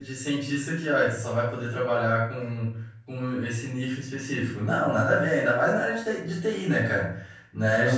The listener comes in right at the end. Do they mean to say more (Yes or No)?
Yes